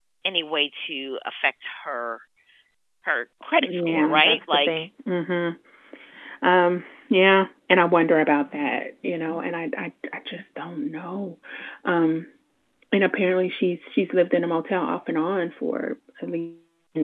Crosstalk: present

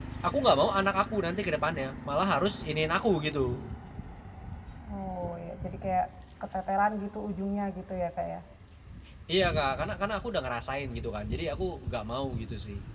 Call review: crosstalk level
none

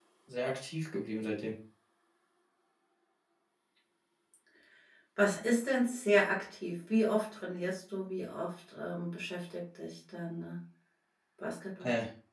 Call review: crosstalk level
none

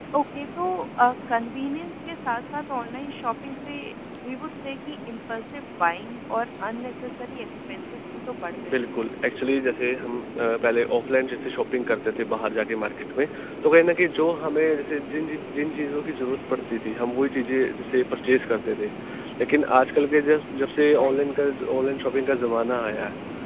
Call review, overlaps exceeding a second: none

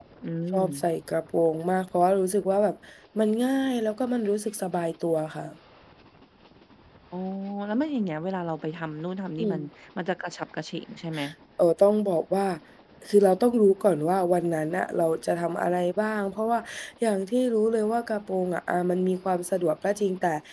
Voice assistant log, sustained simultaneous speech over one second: none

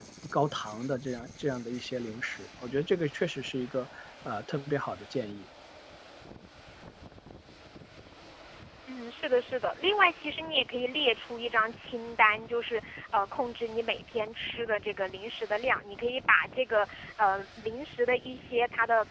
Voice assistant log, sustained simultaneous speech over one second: none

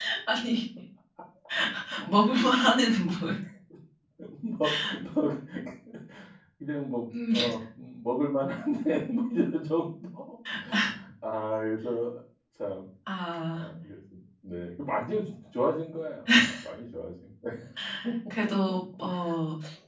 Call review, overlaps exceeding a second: none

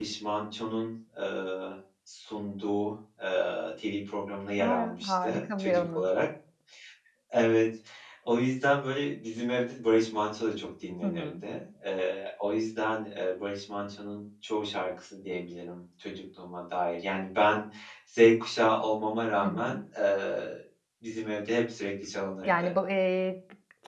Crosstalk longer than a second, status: present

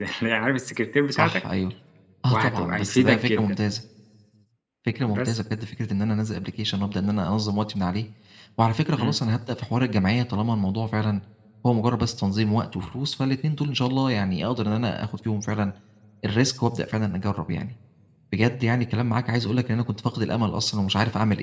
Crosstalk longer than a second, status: present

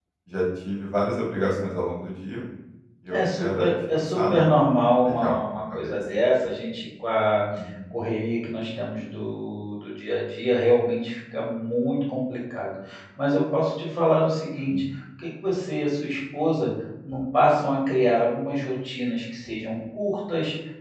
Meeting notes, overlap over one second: present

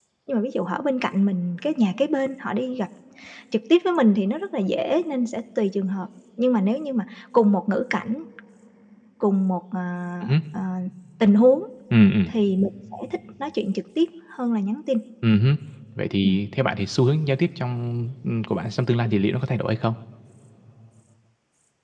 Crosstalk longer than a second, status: none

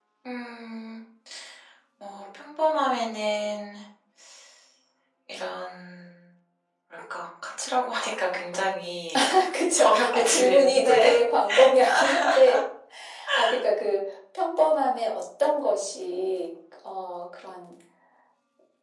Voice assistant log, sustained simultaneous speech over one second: present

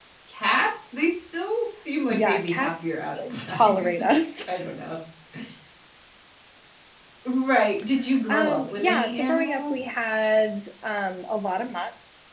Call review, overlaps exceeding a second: present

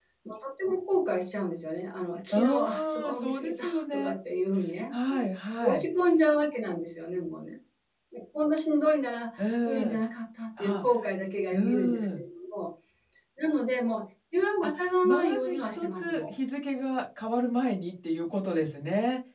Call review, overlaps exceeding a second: present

